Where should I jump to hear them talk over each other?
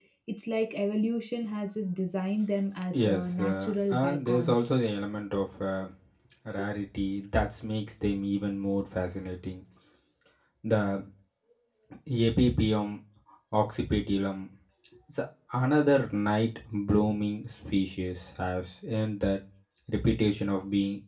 2.9 s

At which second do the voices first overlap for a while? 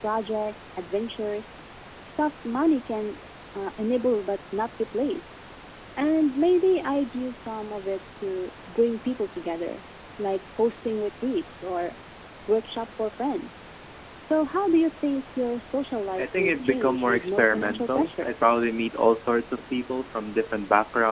15.9 s

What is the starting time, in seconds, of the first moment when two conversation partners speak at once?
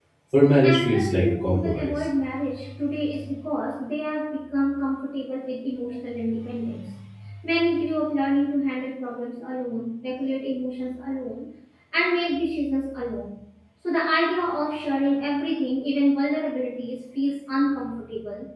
0.6 s

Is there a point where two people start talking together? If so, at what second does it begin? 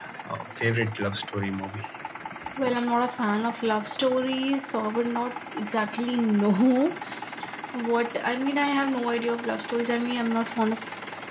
none

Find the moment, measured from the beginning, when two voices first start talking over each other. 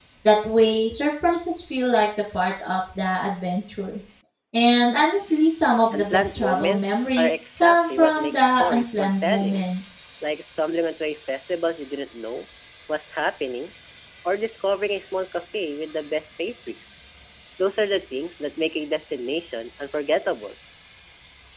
5.9 s

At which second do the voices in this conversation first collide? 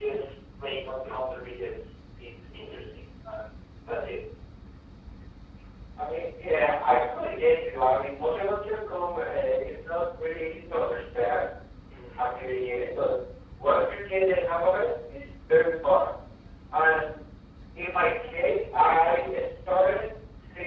none

